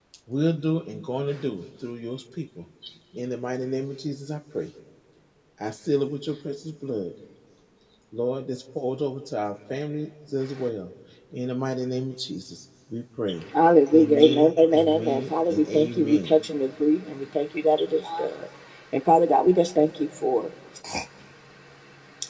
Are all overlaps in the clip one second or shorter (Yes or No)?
No